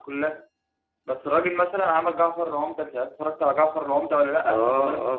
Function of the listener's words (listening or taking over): taking over